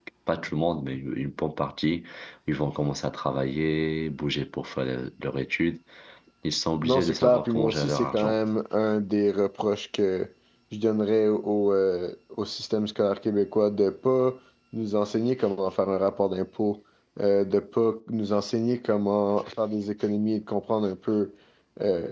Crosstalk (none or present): present